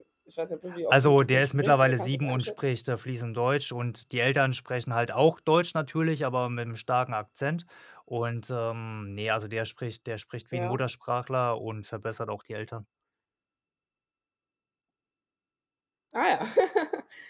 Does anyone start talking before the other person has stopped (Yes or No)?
Yes